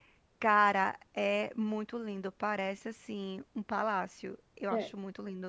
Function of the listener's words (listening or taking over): taking over